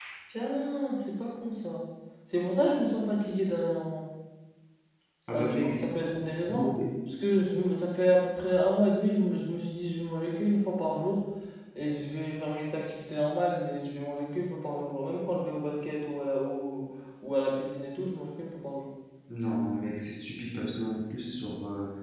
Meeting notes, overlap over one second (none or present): present